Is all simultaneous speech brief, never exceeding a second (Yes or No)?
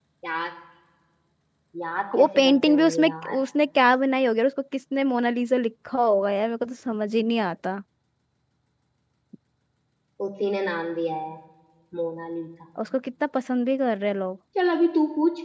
No